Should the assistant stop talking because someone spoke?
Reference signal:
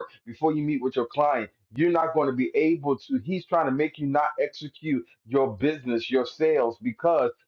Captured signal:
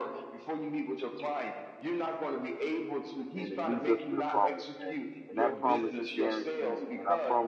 Yes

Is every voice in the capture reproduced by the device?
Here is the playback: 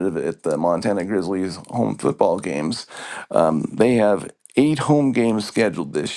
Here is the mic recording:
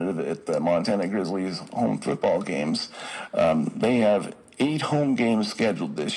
Yes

